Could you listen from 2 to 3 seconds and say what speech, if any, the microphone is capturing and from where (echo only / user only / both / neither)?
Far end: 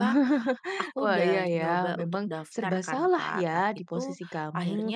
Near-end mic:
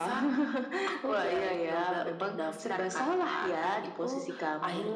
echo only